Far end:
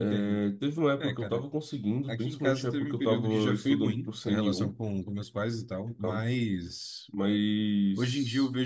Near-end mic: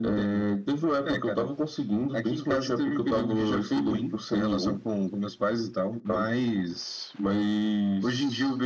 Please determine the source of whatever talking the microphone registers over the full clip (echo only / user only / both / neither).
echo only